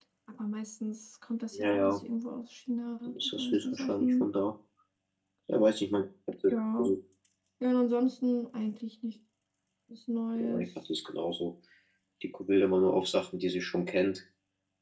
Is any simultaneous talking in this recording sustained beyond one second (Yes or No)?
Yes